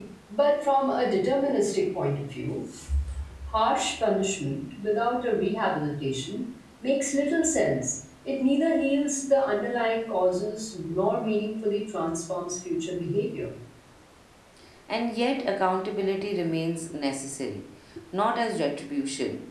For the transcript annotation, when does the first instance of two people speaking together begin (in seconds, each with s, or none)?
none